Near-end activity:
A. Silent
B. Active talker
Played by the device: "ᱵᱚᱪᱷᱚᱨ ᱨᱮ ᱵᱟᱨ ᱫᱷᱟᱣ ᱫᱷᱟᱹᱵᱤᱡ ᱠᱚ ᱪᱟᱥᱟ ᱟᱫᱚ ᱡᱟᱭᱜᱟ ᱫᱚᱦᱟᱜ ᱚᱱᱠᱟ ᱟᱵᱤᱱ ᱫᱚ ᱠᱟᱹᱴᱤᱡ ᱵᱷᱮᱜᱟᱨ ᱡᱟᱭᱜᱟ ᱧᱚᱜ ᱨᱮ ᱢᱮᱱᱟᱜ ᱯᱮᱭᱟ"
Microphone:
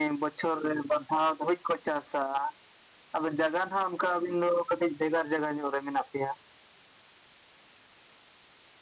A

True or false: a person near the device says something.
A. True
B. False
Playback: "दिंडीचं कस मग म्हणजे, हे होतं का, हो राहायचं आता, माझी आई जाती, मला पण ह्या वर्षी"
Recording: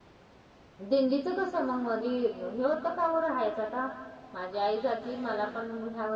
A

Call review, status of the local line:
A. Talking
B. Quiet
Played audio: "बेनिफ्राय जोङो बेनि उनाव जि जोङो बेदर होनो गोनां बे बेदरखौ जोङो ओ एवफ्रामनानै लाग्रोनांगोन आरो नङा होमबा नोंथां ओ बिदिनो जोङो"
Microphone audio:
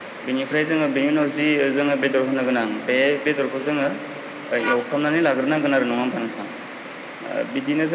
B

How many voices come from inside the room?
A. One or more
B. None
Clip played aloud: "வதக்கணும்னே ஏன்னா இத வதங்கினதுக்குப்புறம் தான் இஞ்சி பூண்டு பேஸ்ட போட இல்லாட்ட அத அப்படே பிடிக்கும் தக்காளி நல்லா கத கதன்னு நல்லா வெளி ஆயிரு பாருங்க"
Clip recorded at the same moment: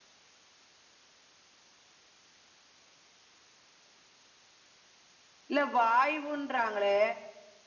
A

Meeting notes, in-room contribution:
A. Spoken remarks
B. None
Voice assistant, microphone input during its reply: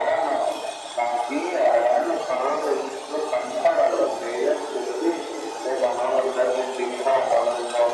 B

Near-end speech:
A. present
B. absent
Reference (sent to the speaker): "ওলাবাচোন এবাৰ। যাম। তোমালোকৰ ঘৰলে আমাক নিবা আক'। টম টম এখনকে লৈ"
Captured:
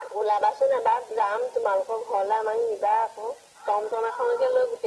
B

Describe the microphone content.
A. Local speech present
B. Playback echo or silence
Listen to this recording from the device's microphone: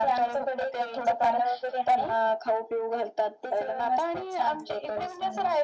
B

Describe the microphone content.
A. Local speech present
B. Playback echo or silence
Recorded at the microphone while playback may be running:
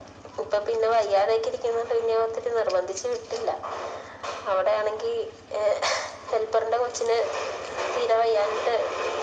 B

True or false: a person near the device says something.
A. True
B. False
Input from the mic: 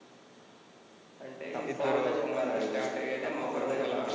A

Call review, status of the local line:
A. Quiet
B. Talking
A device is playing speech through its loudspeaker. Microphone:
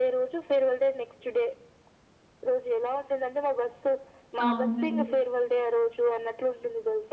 B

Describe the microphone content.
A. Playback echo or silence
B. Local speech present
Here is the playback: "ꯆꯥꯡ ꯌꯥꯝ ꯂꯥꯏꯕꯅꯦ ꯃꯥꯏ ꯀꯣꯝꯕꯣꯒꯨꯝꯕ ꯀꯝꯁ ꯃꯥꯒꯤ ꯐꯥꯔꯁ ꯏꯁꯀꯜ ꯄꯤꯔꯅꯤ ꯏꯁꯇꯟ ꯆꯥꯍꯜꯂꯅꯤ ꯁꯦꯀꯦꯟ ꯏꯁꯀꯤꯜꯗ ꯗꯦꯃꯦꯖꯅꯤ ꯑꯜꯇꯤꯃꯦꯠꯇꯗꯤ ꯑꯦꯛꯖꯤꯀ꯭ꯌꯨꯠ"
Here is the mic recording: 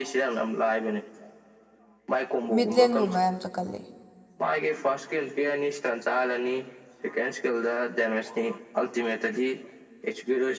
B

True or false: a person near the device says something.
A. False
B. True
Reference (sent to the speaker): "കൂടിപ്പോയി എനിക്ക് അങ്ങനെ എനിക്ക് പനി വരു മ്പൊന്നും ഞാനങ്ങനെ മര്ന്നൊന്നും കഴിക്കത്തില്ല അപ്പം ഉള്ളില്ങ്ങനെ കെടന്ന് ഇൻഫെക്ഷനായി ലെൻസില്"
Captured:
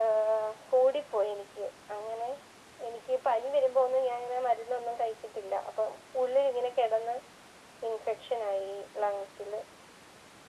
A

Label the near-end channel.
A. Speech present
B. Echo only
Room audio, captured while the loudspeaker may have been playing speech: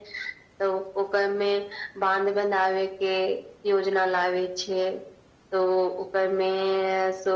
B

